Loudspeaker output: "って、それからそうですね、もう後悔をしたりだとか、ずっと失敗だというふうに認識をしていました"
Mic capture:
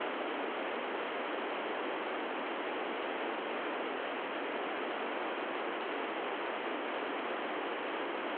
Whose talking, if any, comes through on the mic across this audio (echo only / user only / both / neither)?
neither